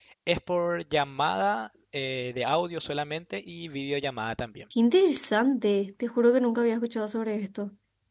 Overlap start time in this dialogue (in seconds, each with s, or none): none